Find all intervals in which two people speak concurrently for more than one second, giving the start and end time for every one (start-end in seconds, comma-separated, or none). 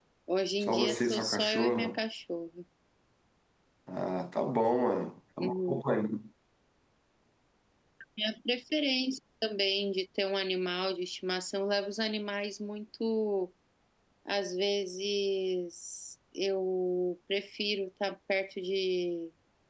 0.6-2.0